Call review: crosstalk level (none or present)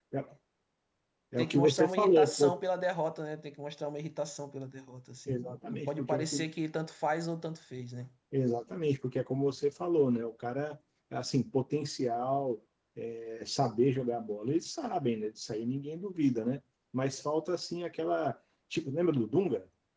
present